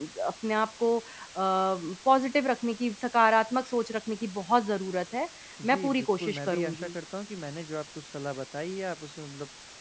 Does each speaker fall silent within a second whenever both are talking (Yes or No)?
No